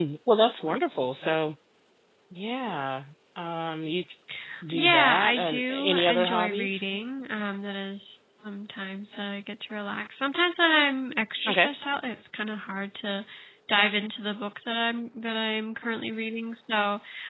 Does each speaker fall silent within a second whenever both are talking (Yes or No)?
No